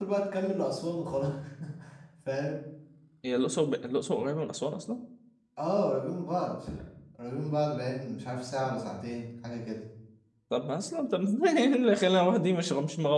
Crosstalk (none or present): none